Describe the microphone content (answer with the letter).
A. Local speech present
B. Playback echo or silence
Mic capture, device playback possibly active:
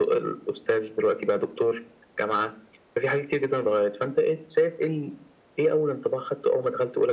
B